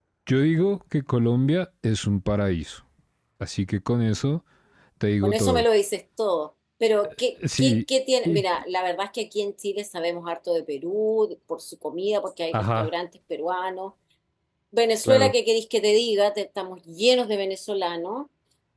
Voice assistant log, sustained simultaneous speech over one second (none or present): none